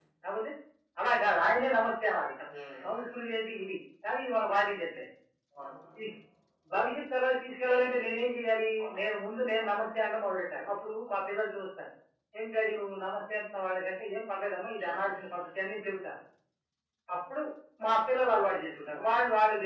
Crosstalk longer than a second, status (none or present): none